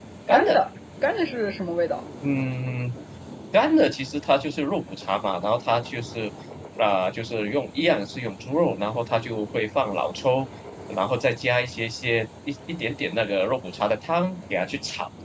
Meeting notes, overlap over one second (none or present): none